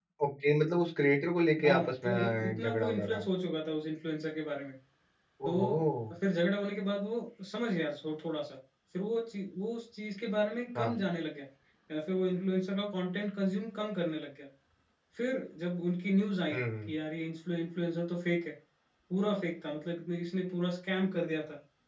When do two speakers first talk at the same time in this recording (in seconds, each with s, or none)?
1.6 s